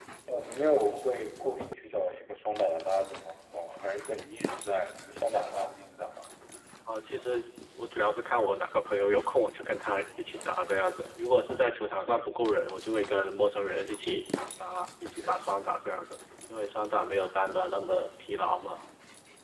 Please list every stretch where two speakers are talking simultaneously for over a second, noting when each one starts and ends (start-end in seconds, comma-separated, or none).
none